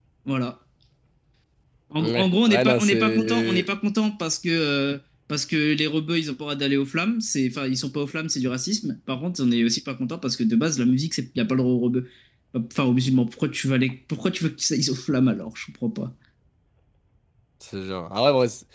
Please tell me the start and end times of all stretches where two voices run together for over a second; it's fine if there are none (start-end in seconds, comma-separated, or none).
2.0-3.7